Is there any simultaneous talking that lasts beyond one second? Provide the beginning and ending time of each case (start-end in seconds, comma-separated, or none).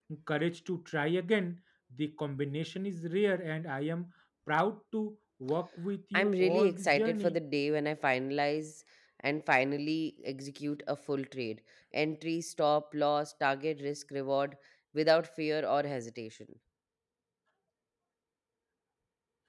6.1-7.4